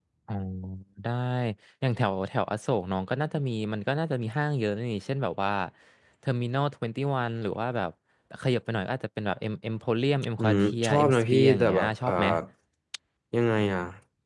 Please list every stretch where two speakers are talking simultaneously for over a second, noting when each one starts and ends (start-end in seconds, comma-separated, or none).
10.4-12.1